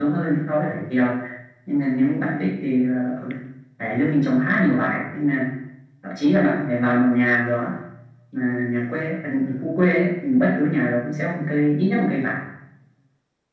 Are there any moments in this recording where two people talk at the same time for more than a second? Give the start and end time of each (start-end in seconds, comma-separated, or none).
none